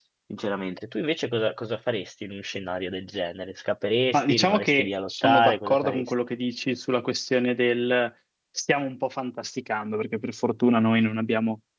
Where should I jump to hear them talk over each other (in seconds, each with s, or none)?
4.1 s